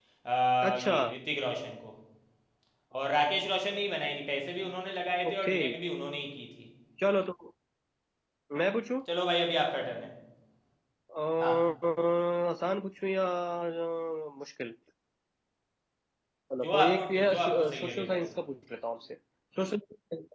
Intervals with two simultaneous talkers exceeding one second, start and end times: 16.6-18.3

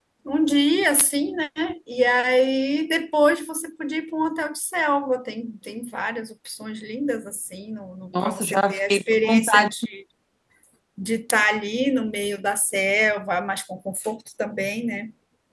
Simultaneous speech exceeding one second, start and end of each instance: 8.2-9.7

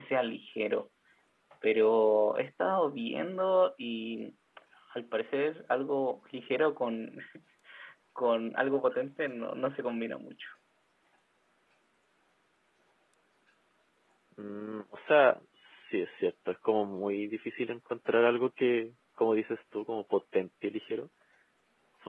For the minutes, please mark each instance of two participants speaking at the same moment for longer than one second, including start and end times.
none

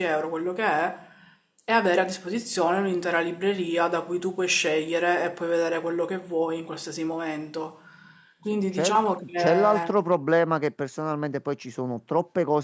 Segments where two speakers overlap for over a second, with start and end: 8.5-9.9

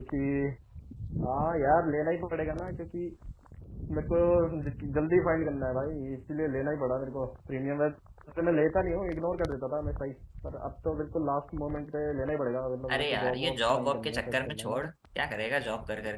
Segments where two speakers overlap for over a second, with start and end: 12.9-14.8

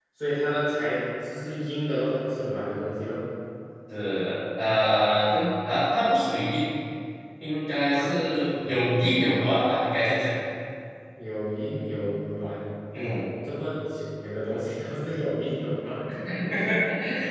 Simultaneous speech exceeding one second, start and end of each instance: 7.9-9.2

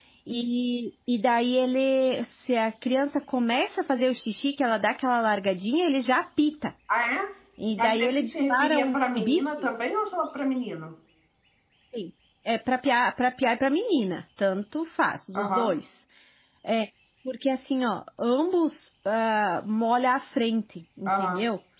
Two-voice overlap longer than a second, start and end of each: 7.8-9.7

